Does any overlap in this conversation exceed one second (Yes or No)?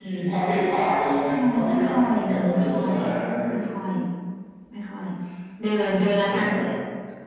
Yes